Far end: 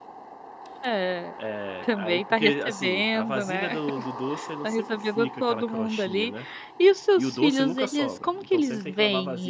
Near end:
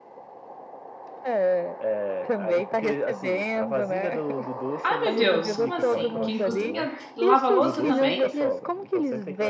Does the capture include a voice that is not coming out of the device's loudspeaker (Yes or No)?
Yes